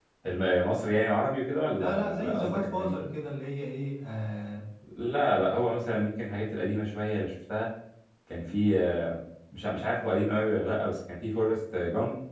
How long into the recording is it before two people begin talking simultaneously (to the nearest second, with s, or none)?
2 s